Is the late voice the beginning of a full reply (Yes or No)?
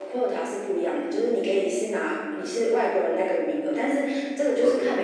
No